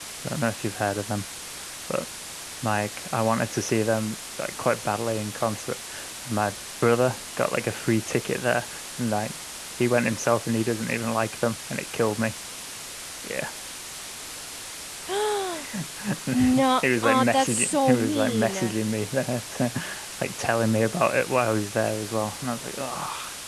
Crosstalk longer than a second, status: present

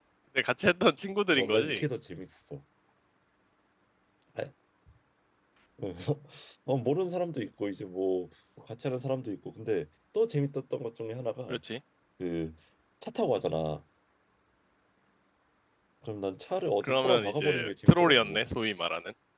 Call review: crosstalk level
present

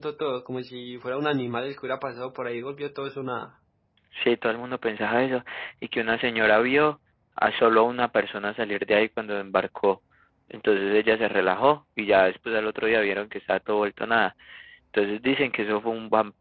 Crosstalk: none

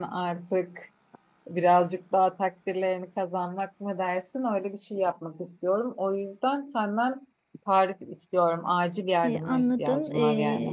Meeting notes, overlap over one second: present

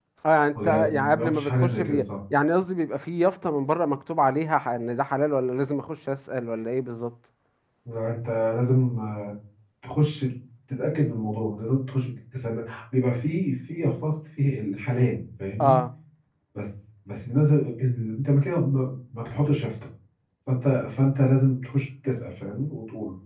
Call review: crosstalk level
present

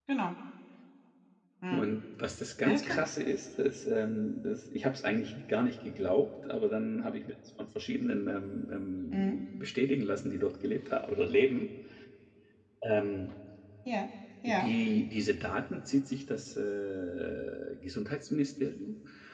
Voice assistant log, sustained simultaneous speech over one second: none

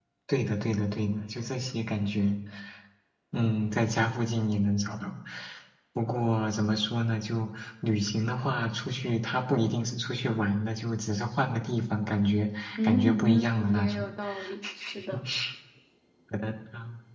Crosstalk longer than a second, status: present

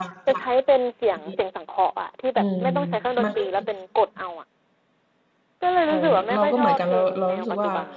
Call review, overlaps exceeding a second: present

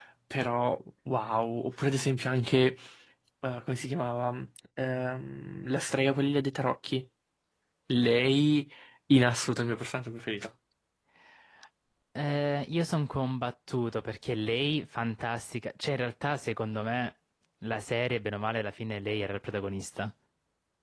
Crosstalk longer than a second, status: none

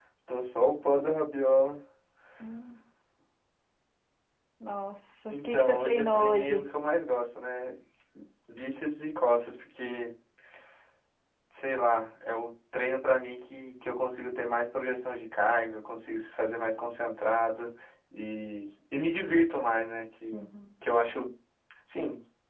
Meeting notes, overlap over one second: present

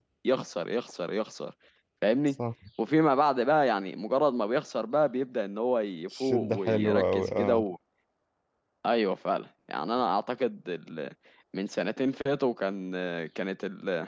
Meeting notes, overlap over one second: present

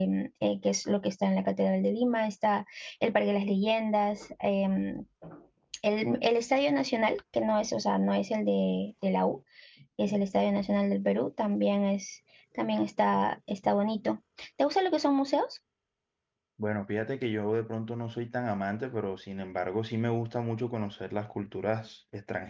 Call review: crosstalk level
none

